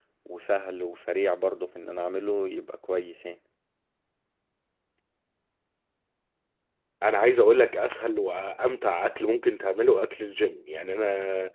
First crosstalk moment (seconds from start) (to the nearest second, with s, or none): none